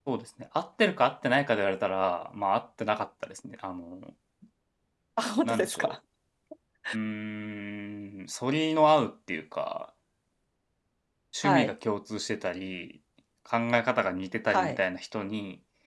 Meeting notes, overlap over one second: none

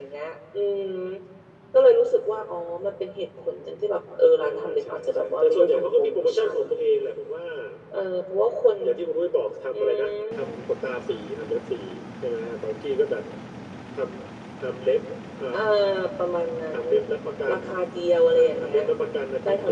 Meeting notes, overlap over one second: present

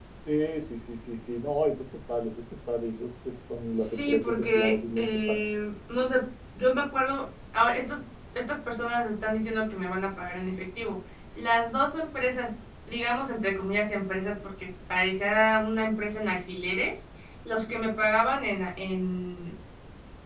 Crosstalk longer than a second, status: present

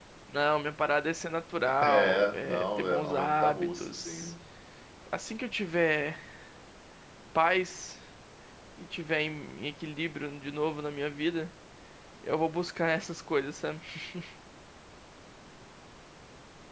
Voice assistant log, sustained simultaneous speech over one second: present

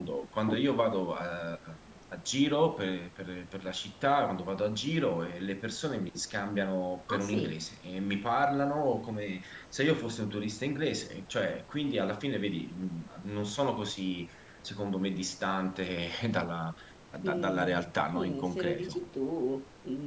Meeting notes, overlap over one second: present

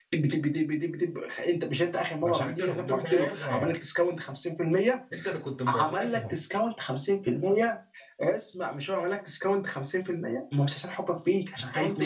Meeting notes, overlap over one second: present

